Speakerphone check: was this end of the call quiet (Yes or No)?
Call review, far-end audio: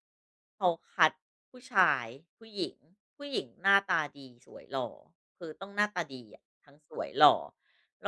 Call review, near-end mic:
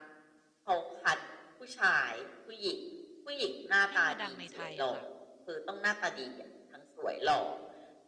No